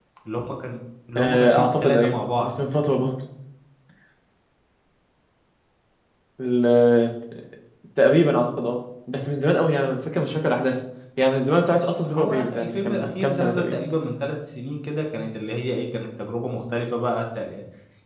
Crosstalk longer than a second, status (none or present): present